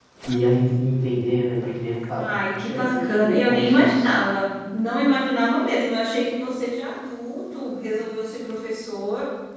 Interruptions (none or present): present